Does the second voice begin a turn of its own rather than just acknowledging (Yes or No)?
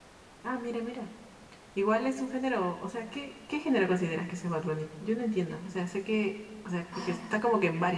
No